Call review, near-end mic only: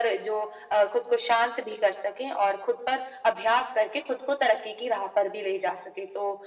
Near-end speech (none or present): none